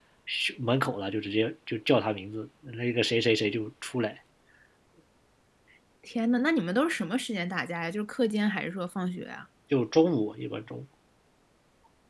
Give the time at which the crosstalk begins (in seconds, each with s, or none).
none